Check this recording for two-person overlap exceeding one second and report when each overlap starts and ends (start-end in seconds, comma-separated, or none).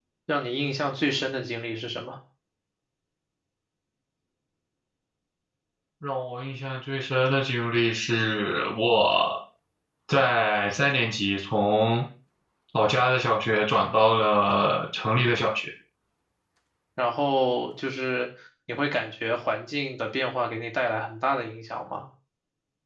none